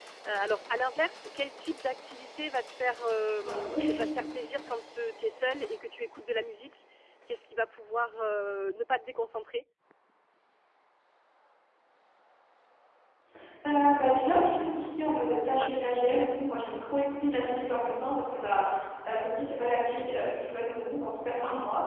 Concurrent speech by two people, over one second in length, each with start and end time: none

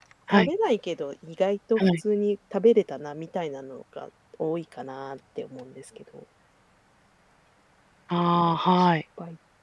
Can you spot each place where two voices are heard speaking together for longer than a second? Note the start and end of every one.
none

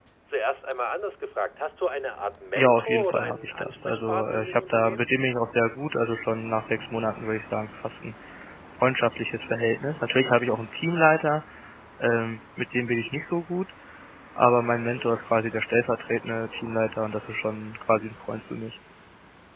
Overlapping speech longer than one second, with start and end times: 2.5-5.1

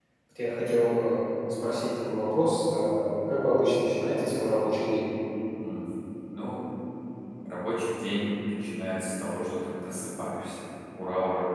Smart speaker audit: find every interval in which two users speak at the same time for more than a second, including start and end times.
none

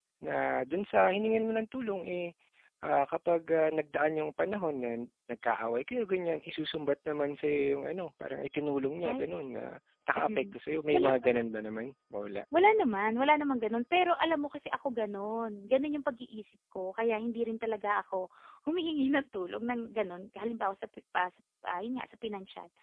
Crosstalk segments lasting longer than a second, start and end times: none

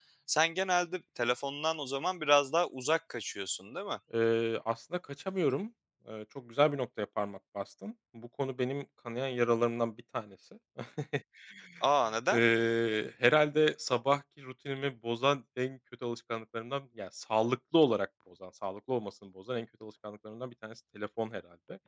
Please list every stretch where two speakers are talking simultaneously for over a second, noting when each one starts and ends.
none

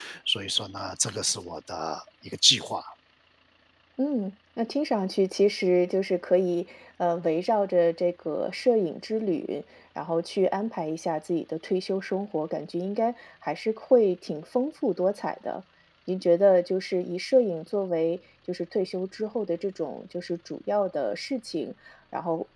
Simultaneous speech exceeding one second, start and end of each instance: none

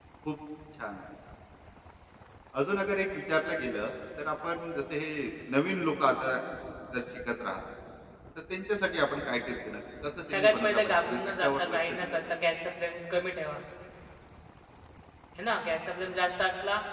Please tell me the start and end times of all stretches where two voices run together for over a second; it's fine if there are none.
10.3-12.3

